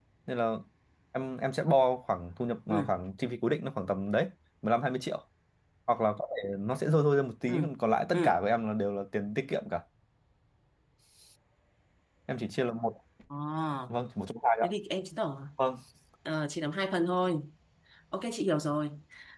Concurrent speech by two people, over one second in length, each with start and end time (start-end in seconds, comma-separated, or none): none